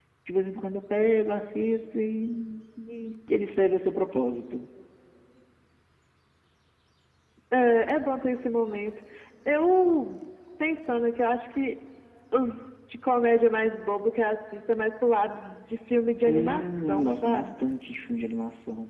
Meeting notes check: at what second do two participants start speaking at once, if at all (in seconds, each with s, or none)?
16.2 s